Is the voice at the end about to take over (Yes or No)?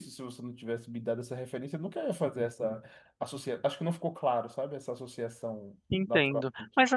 Yes